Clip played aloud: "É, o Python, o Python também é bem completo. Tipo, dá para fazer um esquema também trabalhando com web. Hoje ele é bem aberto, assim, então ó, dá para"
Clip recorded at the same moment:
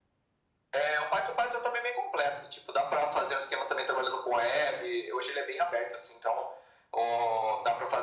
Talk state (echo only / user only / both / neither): echo only